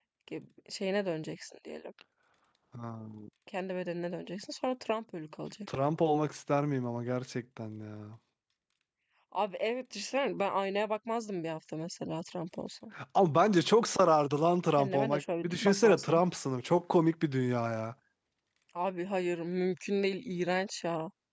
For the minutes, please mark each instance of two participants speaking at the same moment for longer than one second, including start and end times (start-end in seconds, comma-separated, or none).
14.8-16.2